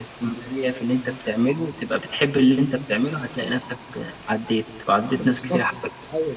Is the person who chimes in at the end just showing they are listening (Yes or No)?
No